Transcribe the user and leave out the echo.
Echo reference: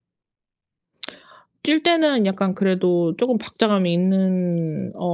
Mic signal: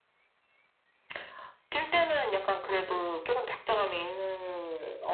none

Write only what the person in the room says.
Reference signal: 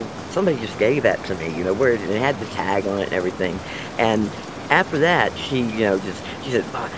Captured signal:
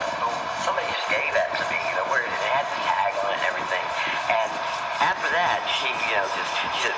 none

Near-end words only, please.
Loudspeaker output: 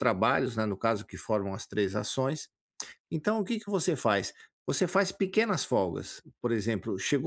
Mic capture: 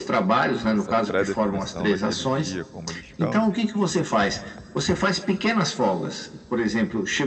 essa pré-definição daquele dia como descanso

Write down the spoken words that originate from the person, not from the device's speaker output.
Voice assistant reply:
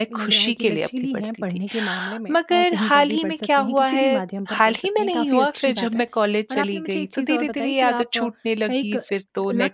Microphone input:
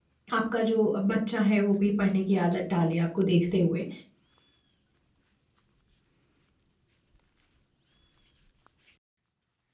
आपका जो बच्चा है वो भी पढ़ने की आदत डाले आपको देखते हुए,

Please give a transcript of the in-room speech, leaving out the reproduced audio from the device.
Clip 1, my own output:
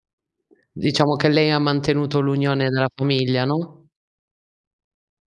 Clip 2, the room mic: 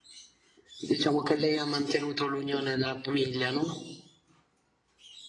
none

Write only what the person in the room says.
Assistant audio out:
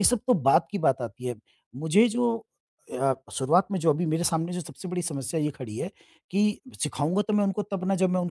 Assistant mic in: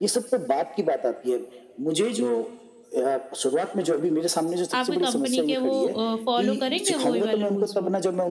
आपकी कंपनी के वो अ, फॉलो करेंगे वो ही वाले रूल्स वो?

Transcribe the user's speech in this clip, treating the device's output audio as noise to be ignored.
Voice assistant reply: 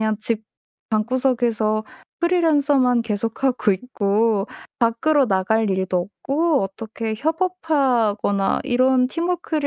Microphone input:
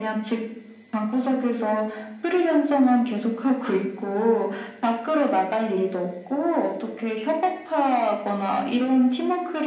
none

